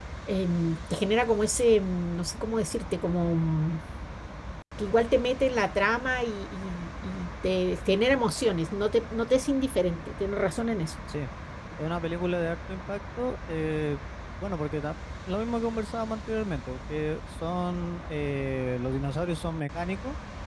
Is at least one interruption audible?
No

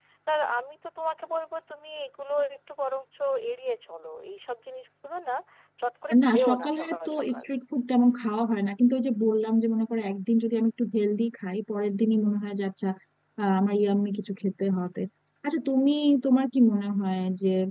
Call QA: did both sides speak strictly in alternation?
No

